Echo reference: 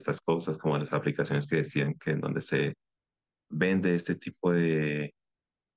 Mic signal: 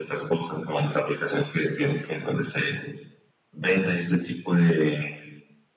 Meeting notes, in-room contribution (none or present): none